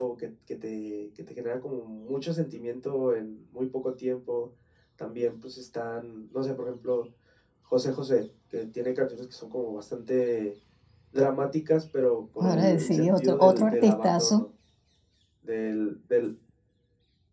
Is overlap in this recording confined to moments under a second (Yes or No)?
No